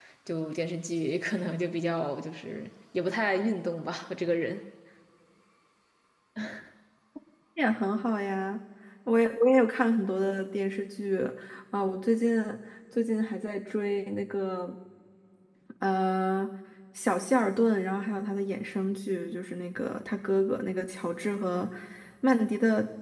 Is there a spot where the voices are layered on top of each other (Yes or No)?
No